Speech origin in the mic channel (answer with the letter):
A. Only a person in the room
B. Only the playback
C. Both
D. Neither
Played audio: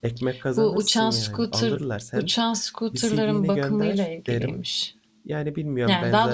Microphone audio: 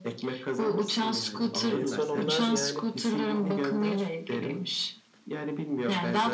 C